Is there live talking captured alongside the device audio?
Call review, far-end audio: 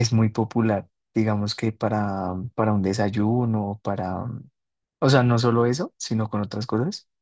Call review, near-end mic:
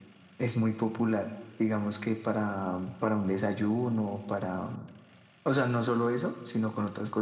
No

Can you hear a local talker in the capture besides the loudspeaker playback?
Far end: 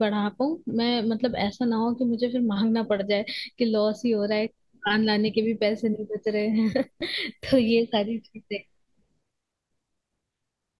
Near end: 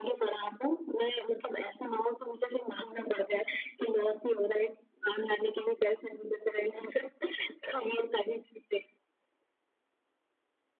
No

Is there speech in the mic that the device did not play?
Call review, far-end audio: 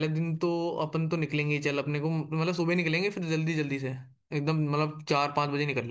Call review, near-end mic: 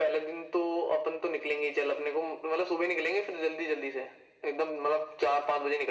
No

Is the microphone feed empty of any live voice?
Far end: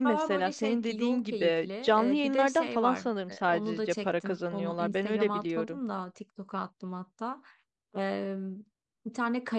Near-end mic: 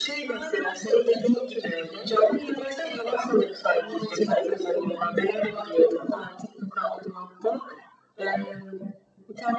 Yes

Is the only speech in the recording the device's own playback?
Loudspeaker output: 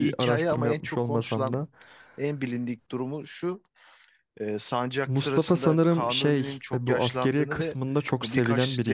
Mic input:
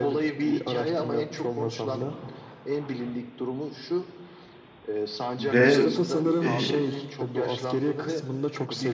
No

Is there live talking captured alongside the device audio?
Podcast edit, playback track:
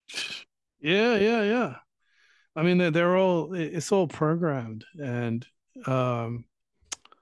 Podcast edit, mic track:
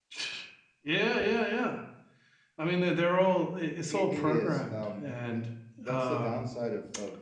Yes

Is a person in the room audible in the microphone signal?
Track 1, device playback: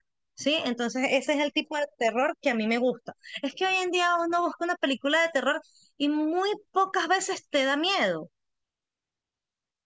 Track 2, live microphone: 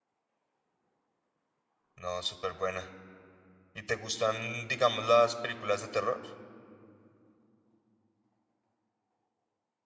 Yes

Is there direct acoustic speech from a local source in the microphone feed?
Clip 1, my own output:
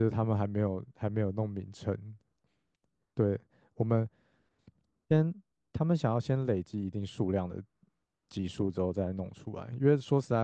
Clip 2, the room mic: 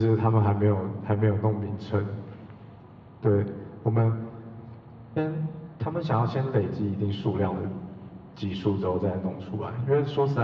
No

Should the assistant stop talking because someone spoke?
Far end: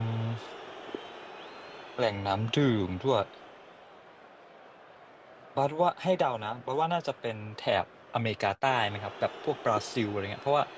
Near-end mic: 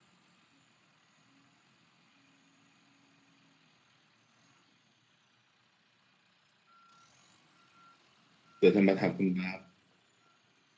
Yes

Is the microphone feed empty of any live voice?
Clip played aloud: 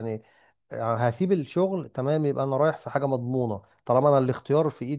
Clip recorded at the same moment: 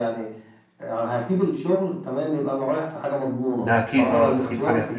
No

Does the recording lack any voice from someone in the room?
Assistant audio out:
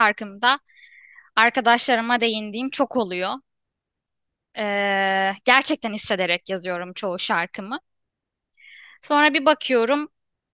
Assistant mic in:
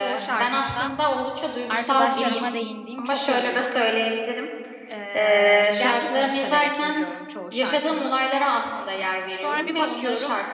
No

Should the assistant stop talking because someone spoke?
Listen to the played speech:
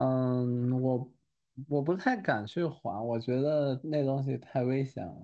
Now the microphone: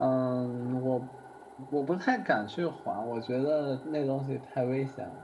No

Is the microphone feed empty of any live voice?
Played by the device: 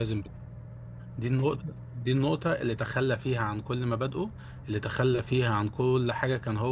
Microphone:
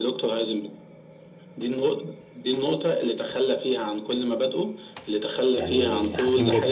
No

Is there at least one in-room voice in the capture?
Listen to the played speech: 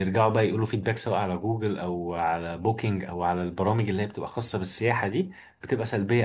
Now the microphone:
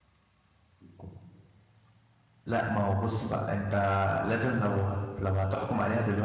Yes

